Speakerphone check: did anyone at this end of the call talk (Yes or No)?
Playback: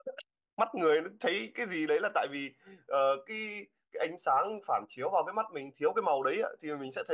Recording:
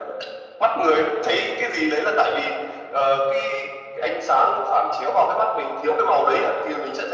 No